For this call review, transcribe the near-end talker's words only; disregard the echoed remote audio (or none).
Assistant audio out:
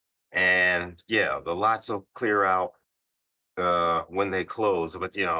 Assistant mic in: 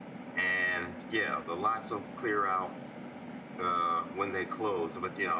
none